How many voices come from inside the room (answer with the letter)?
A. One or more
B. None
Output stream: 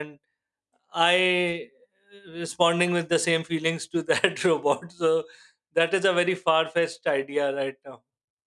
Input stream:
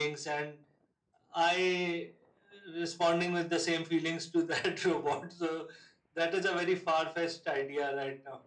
B